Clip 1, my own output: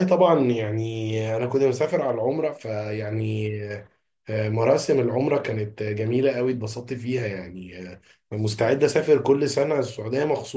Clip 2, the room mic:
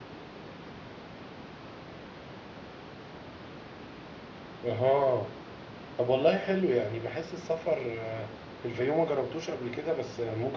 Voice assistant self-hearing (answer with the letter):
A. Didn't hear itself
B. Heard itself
A